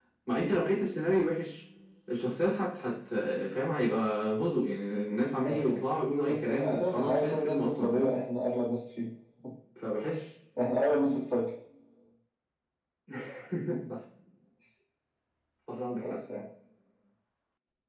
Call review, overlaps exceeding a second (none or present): present